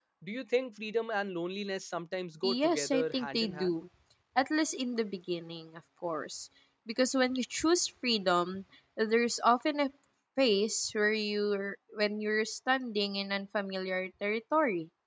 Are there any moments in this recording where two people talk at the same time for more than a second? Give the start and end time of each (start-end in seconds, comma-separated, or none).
2.4-3.8